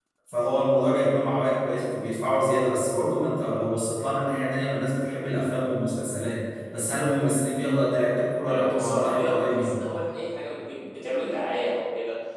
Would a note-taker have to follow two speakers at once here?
Yes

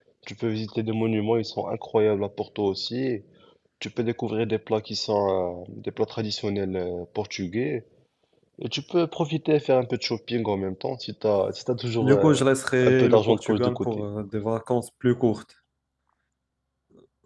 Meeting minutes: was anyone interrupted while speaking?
Yes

